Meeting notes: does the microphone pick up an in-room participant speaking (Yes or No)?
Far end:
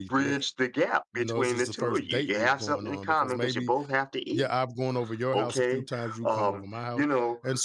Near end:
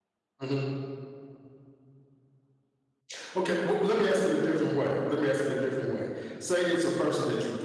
Yes